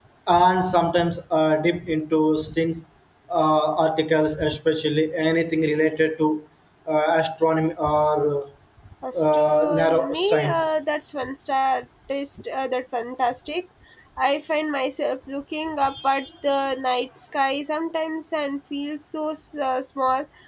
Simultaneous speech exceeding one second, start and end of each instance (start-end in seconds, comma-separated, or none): 9.2-10.7